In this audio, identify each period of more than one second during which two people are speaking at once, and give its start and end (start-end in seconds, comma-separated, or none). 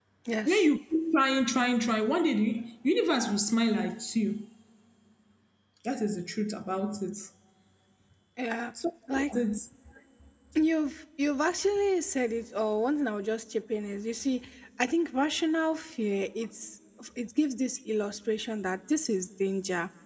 none